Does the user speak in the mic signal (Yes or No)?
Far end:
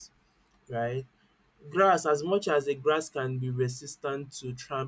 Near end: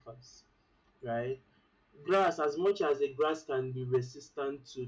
No